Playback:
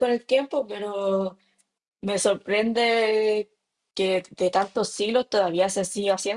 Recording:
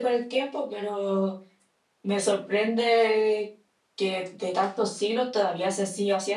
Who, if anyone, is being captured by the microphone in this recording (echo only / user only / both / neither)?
echo only